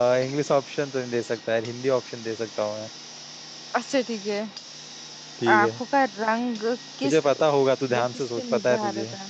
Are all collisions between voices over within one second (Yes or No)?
No